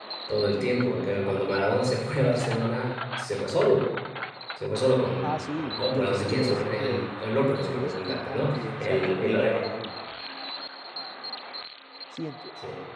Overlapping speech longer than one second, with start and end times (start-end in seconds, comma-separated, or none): 5.2-7.0, 7.7-9.7